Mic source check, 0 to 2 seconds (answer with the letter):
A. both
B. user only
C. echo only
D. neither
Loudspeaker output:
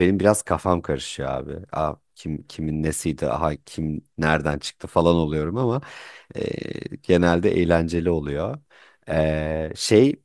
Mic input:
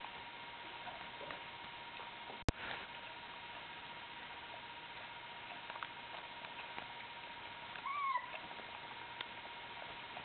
D